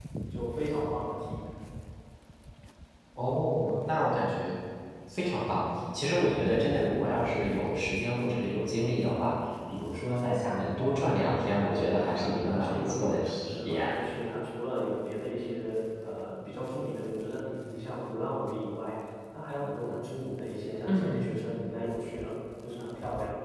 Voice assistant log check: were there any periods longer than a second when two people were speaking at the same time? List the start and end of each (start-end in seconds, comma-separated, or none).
11.7-13.9